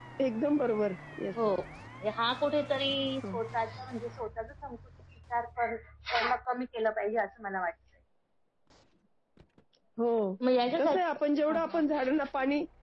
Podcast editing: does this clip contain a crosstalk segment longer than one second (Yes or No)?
No